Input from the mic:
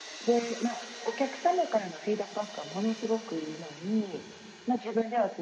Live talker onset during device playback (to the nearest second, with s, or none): none